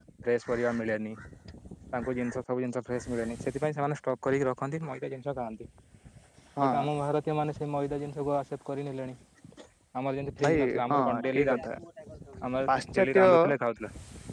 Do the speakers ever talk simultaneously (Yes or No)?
Yes